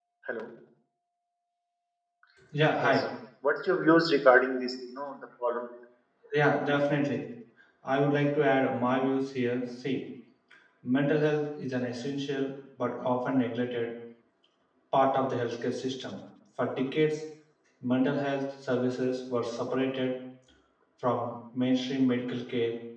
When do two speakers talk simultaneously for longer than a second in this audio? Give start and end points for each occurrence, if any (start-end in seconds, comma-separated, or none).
none